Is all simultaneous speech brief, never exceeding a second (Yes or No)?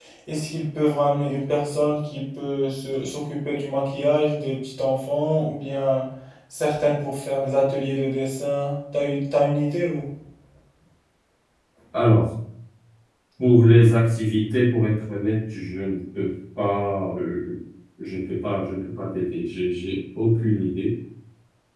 Yes